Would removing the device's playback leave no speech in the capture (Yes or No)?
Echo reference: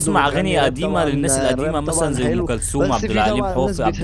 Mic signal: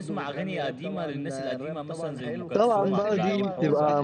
No